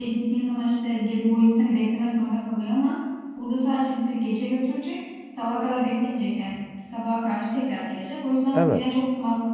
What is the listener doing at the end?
listening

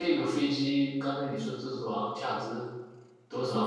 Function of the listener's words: taking over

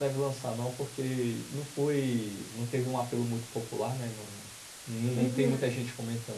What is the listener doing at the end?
listening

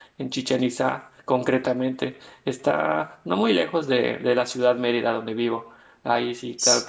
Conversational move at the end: listening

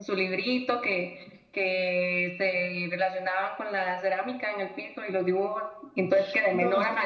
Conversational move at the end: listening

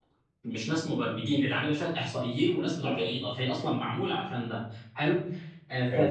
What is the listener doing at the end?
listening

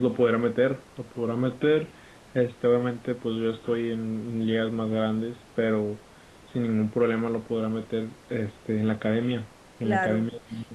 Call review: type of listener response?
taking over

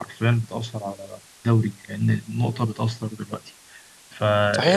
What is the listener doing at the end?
taking over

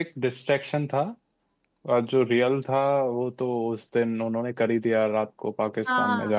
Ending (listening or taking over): taking over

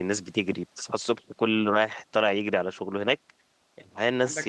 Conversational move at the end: listening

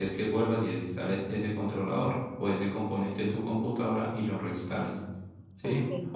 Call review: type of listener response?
listening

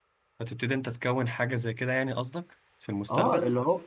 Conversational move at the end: taking over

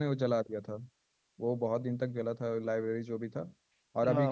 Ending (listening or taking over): listening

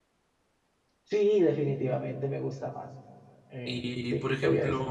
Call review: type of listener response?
taking over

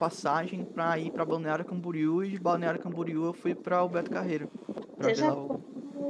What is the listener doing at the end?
taking over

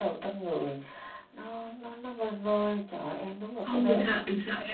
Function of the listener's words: taking over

